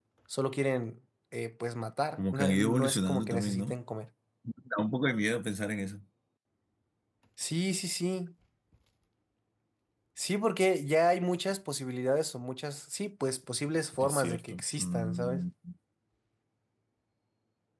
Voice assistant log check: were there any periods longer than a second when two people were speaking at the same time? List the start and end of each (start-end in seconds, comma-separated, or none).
2.2-3.8, 14.0-15.4